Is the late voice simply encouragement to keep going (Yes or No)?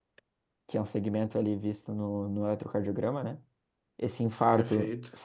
Yes